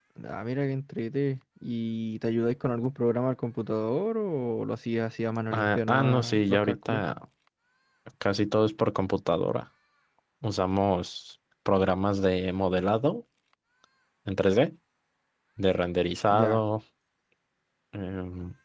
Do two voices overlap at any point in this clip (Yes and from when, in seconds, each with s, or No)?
Yes, from 5.5 s